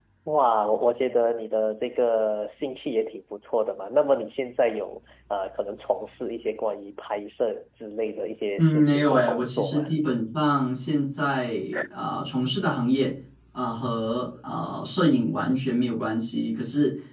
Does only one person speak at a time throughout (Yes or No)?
No